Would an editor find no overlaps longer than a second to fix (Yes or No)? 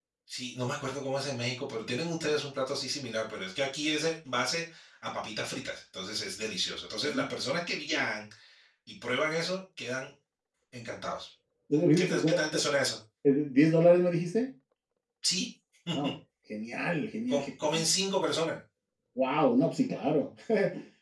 Yes